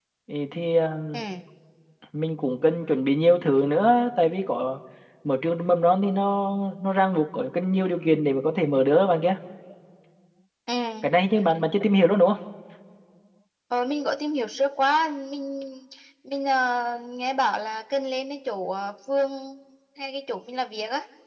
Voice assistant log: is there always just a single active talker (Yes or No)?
Yes